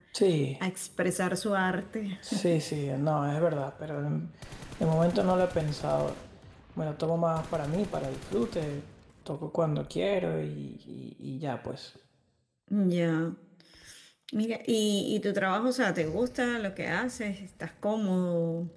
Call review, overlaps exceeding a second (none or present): none